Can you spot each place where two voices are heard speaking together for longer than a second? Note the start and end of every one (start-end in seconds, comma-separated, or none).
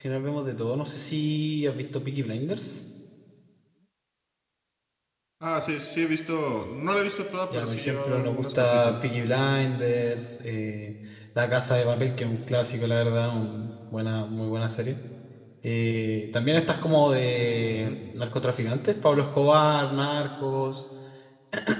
7.5-9.0